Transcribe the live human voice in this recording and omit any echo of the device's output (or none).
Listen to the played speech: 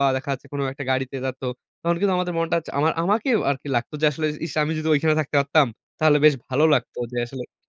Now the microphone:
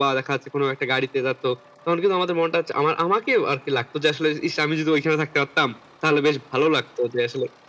none